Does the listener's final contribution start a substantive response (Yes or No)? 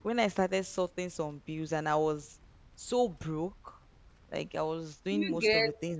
No